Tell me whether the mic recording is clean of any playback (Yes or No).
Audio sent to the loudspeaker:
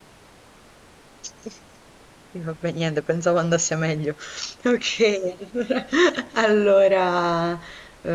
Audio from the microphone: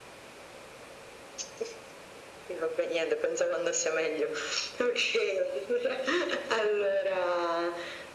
No